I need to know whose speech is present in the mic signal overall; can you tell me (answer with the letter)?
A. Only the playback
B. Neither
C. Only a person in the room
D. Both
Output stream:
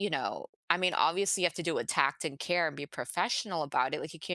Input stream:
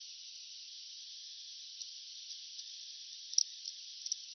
B